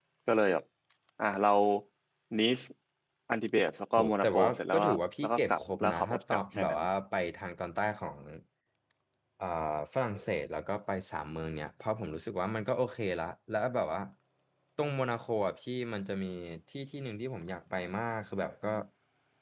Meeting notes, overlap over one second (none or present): present